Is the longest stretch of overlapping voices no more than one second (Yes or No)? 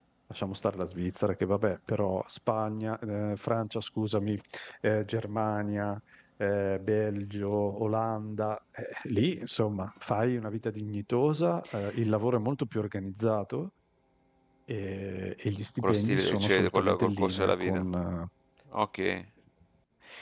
No